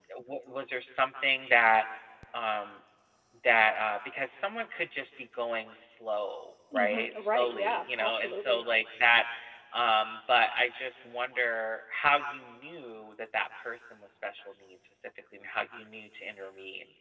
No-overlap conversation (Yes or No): No